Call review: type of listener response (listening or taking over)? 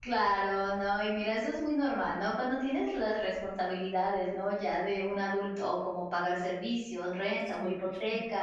listening